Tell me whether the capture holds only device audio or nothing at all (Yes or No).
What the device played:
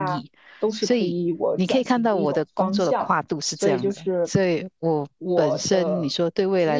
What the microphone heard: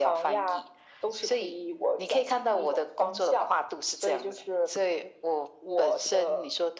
Yes